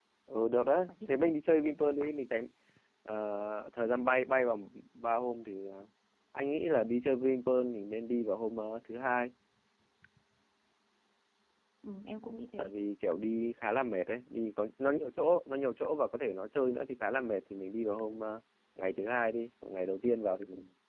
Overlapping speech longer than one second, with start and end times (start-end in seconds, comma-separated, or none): 0.9-2.1